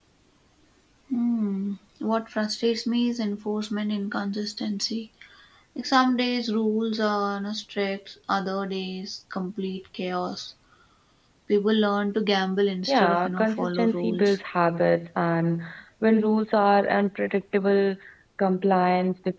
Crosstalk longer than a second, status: present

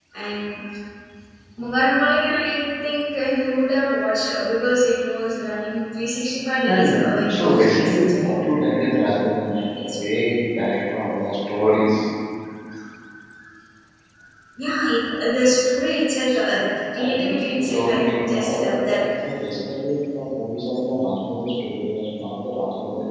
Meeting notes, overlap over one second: present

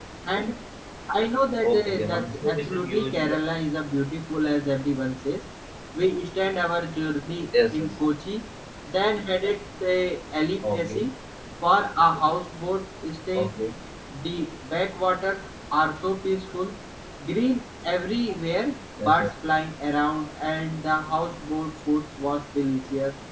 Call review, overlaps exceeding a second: present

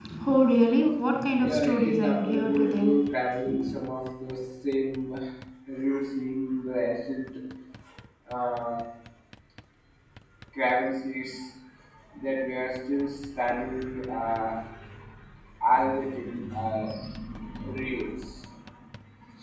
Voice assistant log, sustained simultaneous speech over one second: present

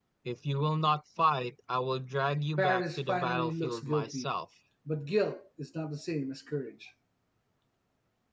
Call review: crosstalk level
present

